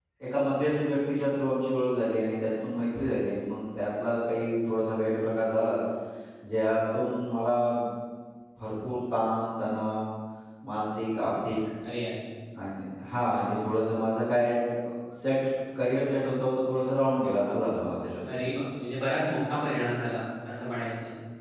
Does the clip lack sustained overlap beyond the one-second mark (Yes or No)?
Yes